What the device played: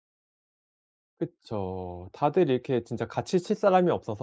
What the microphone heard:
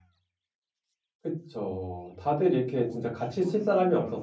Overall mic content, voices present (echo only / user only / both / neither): both